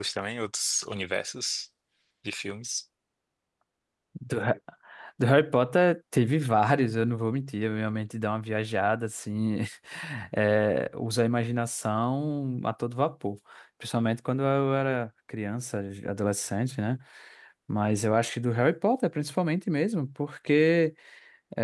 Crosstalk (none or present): none